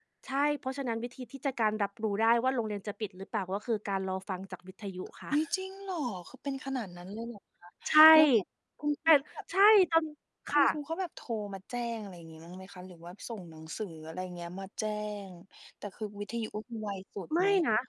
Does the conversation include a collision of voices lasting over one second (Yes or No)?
No